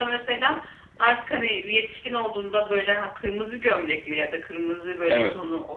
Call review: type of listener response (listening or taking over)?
listening